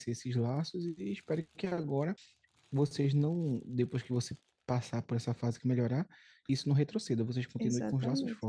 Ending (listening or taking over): taking over